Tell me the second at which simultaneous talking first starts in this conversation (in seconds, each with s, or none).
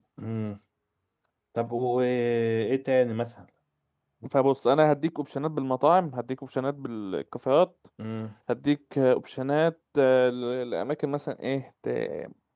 none